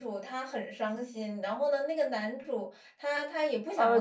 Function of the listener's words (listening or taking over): taking over